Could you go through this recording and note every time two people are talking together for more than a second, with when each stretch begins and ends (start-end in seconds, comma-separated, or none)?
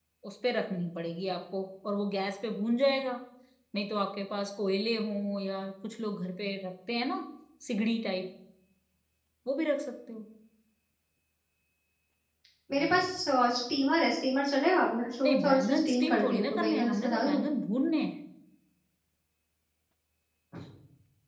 15.2-17.4